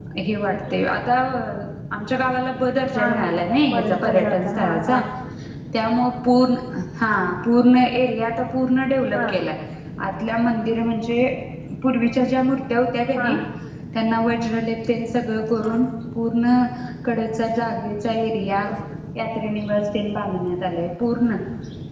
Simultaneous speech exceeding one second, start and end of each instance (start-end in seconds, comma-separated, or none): 3.7-5.0